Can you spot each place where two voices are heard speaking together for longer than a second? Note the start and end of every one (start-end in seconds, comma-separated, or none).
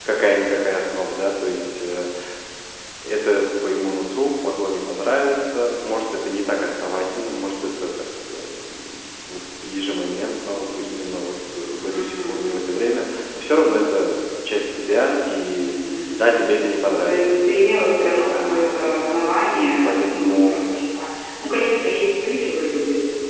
18.3-20.6